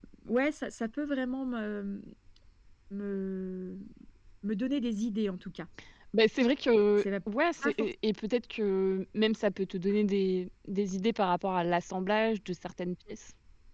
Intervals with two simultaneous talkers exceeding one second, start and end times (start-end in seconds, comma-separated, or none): none